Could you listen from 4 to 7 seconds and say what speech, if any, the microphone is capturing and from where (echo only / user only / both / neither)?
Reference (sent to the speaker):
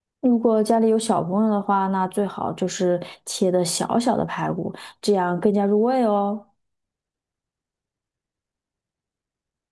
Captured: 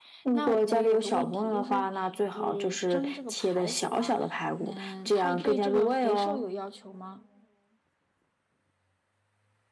both